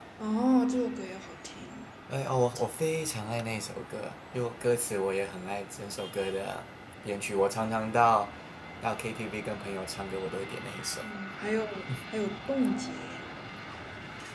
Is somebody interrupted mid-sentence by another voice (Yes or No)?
No